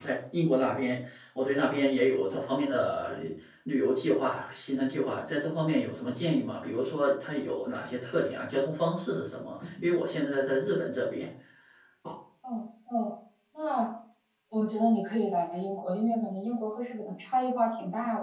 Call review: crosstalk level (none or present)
none